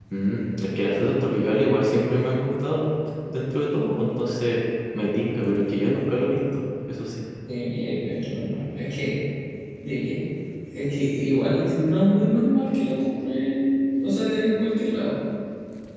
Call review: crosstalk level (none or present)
none